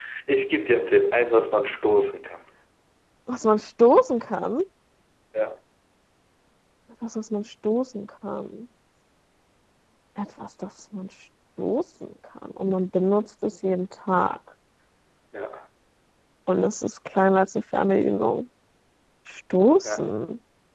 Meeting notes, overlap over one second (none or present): none